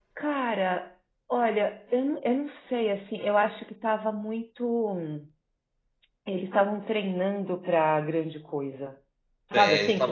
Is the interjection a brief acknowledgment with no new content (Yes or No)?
No